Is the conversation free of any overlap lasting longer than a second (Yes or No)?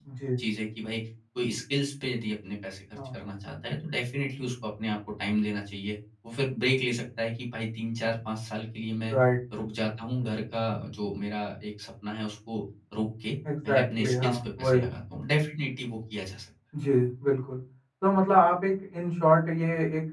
No